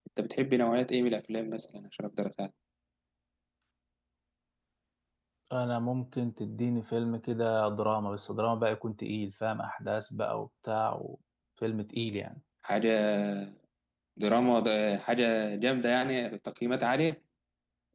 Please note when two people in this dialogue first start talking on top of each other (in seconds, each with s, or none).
none